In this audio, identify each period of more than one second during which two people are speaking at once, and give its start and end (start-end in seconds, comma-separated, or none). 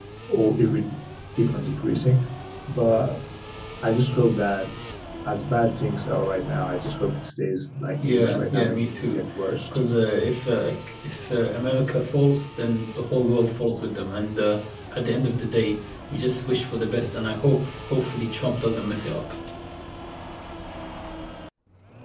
8.0-9.2